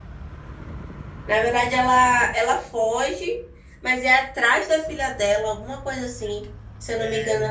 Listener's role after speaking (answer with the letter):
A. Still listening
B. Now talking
A